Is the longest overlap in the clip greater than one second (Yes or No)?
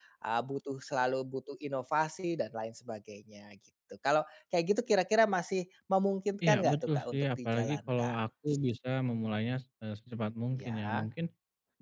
Yes